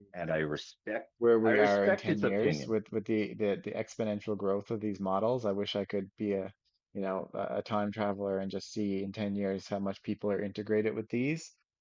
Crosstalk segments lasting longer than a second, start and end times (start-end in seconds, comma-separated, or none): 1.4-2.7